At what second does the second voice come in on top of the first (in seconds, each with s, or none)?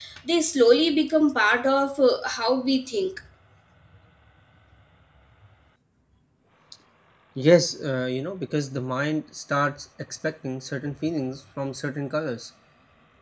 none